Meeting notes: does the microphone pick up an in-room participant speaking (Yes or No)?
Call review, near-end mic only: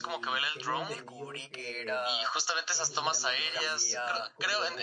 Yes